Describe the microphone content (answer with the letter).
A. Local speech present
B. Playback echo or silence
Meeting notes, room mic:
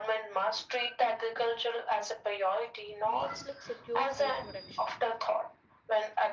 A